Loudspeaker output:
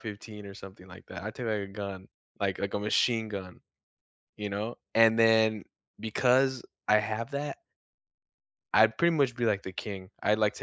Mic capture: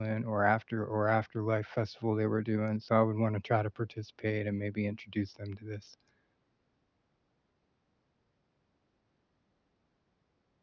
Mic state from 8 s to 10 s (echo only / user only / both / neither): neither